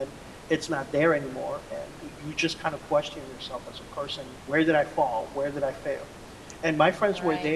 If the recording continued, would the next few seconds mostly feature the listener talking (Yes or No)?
No